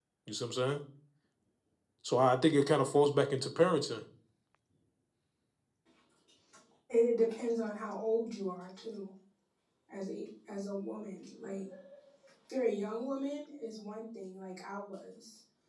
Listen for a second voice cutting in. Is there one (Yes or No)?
No